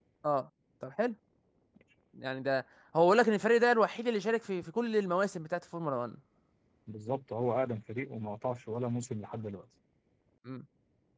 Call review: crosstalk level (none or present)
none